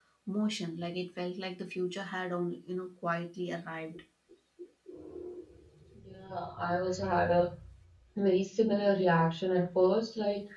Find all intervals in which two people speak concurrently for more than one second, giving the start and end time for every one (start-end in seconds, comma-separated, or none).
none